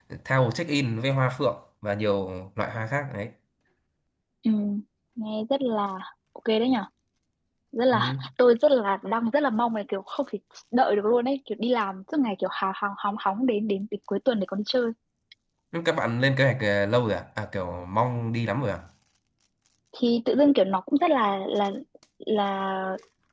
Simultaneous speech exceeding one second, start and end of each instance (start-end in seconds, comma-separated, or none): none